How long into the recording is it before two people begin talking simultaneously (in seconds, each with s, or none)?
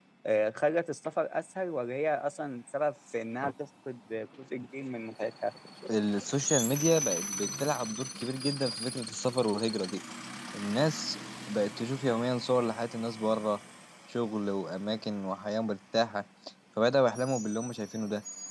none